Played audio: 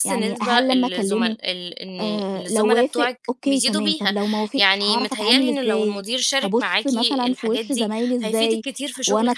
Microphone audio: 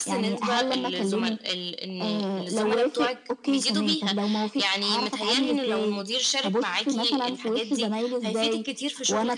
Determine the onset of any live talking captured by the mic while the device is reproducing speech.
none

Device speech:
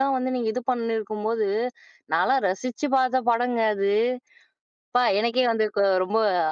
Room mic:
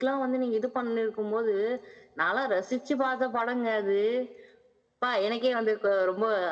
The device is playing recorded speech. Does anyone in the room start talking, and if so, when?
none

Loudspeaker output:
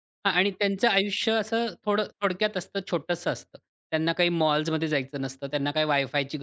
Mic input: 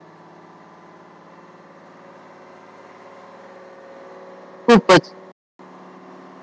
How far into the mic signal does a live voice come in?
5 s

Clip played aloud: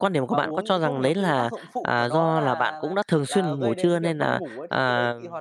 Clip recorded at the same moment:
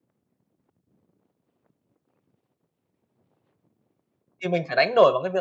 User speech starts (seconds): 4 s

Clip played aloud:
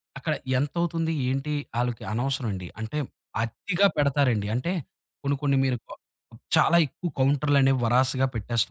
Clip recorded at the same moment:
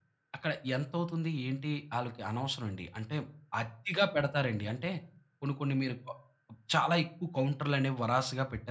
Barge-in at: none

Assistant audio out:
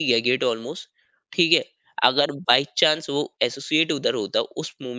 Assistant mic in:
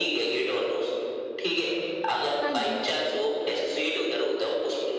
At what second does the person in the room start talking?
2 s

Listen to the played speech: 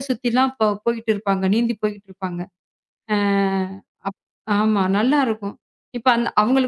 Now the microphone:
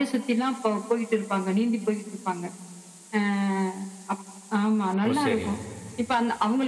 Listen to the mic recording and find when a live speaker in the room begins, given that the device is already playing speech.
5 s

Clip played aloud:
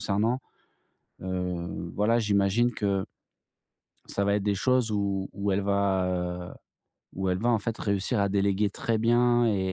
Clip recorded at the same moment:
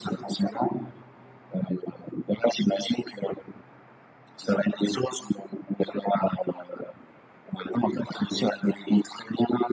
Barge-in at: none

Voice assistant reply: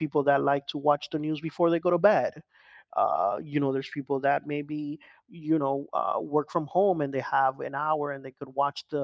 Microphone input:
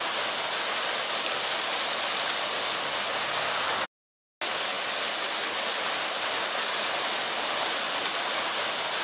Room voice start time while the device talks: none

